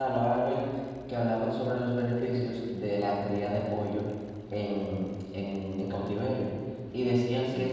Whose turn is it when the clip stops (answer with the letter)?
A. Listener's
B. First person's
B